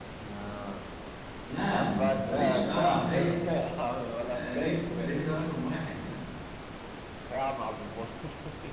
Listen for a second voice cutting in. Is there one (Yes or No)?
Yes